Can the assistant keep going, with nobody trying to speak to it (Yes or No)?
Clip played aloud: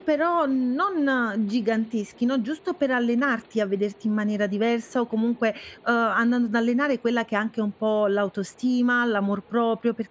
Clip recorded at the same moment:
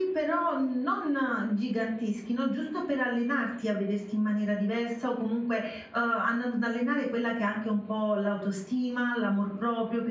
Yes